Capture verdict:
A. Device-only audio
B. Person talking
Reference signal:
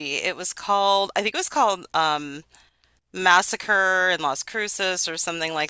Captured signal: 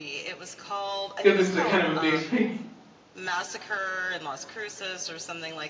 B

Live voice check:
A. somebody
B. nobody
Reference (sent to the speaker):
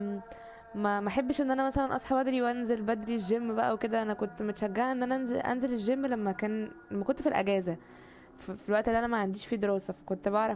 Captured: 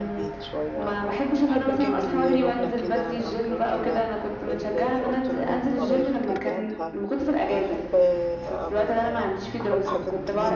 A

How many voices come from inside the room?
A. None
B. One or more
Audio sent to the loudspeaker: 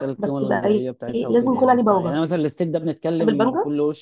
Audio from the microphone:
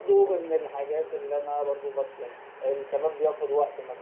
B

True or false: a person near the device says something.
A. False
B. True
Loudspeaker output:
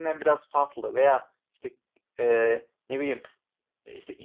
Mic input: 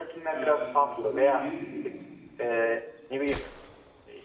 B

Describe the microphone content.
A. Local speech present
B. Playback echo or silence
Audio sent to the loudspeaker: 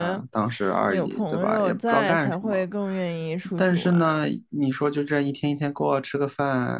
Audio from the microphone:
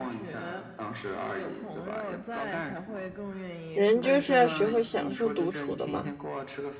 A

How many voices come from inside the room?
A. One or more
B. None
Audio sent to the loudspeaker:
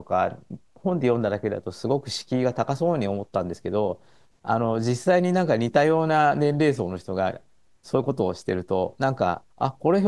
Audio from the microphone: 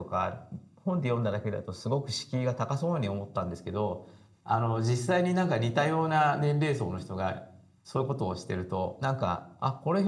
B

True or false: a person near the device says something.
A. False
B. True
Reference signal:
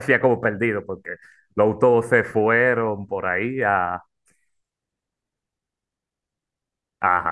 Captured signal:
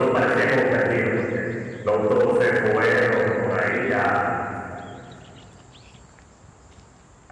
A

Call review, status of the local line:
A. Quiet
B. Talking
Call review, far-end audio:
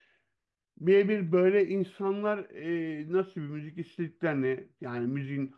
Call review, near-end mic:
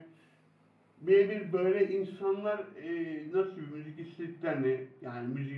A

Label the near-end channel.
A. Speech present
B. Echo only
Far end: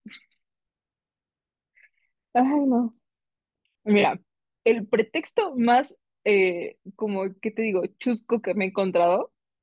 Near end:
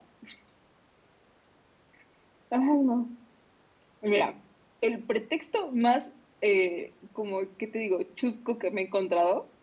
B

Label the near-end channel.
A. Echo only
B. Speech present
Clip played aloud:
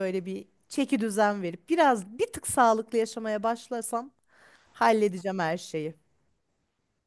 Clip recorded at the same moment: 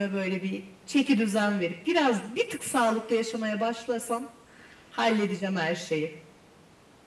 A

